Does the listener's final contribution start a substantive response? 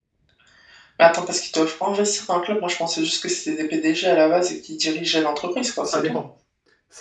Yes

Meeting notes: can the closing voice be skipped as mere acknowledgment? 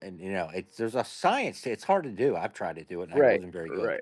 No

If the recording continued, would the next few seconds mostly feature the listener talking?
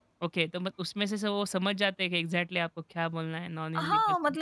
Yes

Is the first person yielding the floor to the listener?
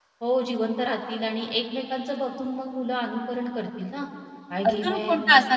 Yes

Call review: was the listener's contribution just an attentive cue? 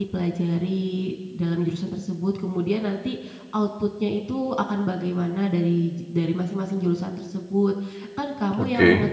Yes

